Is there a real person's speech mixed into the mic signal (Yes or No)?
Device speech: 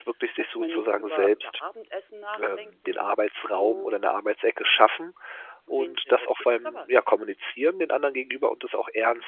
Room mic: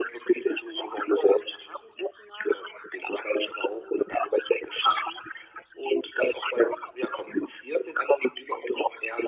No